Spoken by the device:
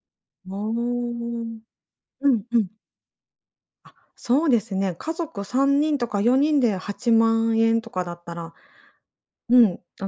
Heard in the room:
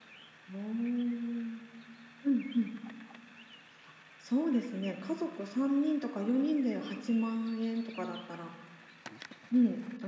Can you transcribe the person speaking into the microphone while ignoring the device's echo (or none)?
none